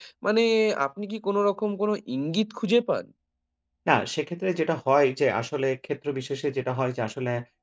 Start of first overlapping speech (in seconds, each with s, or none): none